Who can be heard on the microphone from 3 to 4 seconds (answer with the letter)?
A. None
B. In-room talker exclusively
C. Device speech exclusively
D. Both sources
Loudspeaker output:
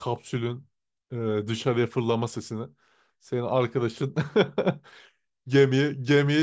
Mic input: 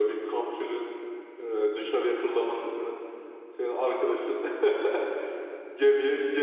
C